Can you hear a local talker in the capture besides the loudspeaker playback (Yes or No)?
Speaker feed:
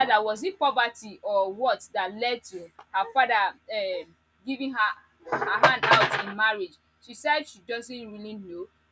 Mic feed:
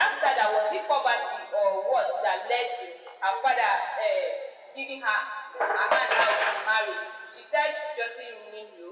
No